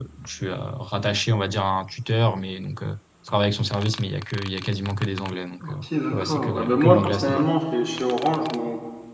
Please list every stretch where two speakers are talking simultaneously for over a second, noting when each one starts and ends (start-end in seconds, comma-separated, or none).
6.2-7.5